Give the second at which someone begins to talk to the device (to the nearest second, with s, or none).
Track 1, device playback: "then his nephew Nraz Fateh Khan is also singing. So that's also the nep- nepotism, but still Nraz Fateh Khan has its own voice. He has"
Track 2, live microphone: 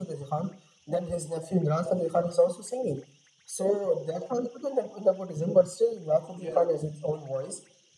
6 s